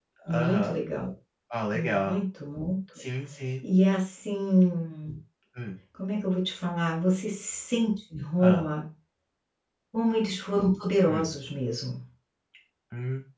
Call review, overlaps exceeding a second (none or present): none